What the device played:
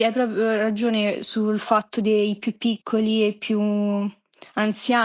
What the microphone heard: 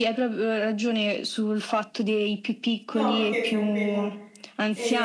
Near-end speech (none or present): present